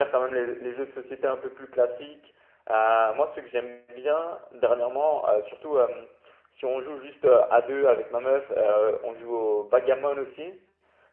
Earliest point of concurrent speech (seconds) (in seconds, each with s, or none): none